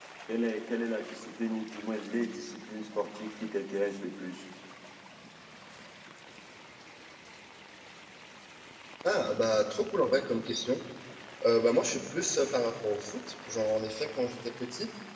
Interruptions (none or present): none